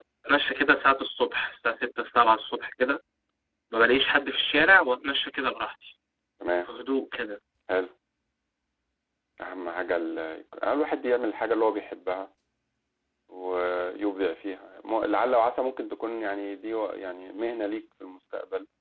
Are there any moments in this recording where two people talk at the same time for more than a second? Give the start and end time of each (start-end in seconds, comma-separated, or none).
none